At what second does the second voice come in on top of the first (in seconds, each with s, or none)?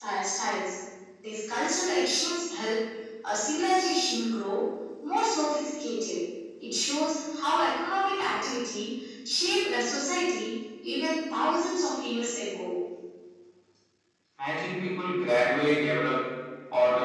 none